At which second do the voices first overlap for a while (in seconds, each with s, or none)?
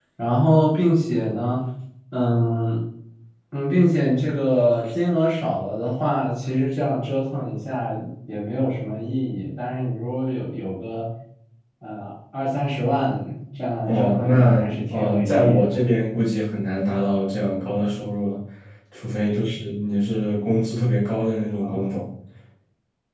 13.8 s